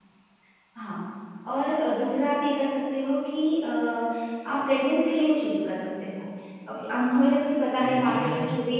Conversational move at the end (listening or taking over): listening